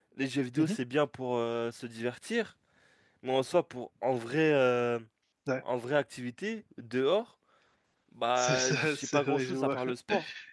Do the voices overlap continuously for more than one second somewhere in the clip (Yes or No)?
Yes